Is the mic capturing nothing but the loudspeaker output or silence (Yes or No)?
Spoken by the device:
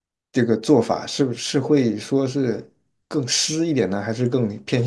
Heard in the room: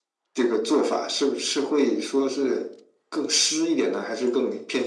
Yes